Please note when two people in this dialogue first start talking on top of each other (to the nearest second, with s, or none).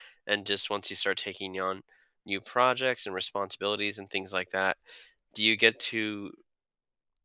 none